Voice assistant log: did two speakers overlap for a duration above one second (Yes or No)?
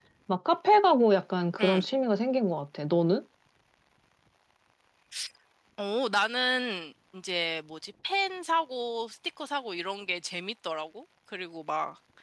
No